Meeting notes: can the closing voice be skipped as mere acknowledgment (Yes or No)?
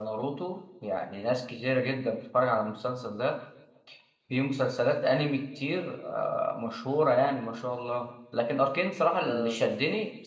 Yes